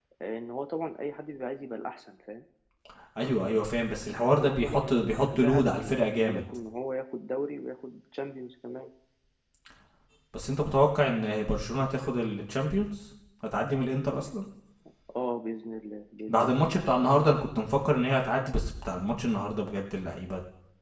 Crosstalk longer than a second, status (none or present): present